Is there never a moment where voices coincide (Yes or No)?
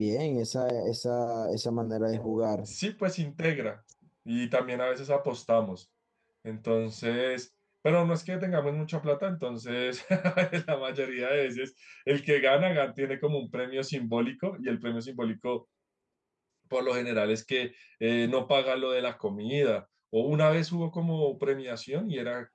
Yes